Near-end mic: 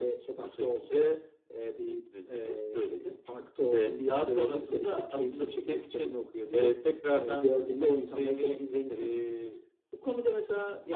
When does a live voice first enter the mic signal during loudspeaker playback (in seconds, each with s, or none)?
none